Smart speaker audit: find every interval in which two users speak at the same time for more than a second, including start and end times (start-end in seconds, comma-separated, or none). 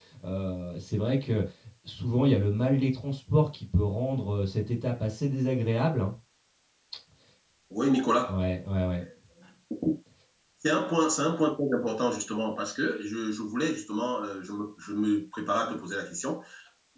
none